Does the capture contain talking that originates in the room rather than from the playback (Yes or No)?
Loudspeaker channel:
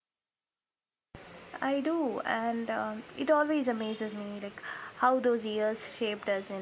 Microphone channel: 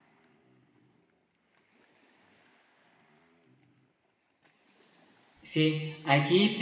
Yes